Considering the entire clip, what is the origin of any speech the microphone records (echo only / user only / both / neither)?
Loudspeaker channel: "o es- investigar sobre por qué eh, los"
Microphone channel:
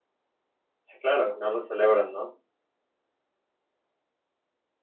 user only